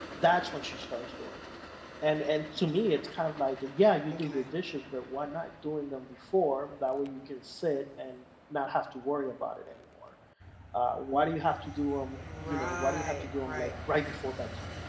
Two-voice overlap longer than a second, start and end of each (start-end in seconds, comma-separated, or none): 12.2-13.7